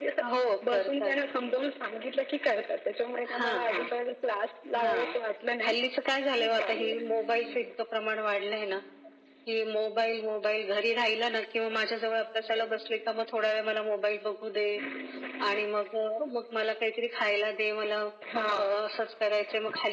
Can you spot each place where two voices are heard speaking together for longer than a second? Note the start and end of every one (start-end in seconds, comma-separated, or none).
6.4-7.7